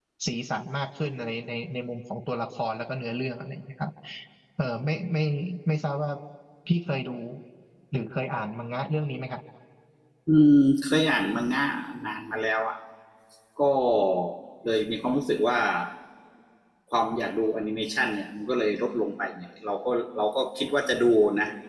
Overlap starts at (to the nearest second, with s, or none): none